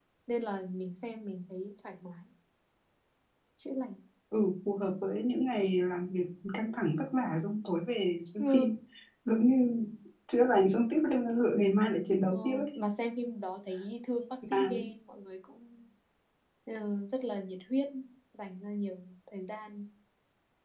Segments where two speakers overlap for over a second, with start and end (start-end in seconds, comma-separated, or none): none